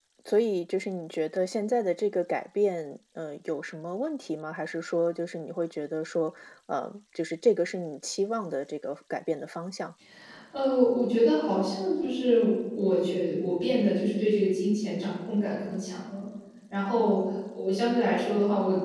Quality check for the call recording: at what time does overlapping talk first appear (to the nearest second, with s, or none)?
none